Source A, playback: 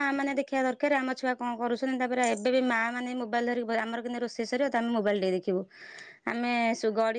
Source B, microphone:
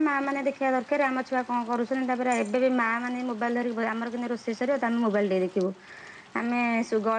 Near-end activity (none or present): none